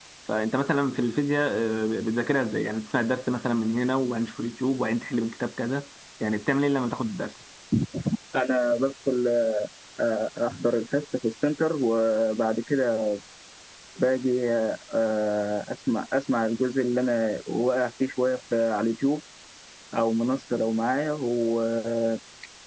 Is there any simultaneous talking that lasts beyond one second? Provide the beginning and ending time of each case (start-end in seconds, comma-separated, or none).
none